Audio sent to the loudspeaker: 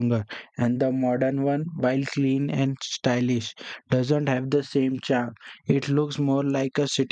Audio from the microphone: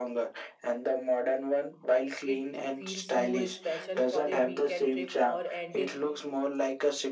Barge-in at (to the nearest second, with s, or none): 2 s